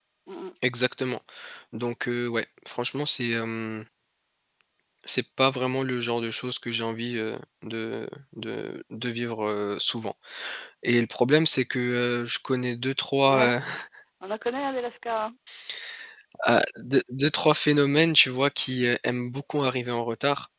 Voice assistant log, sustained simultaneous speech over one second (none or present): none